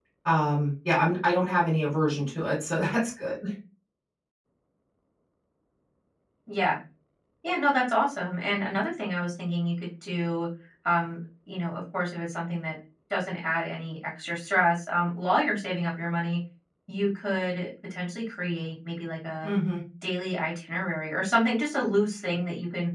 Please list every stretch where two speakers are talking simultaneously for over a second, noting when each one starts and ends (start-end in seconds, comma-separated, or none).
none